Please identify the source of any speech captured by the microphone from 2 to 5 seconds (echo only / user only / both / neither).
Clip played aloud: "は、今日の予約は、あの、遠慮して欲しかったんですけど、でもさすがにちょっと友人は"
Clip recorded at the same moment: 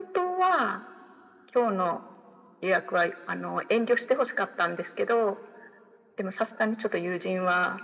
echo only